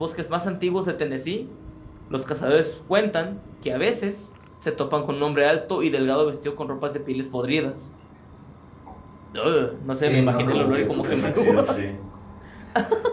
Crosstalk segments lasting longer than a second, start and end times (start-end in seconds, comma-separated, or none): 10.0-11.8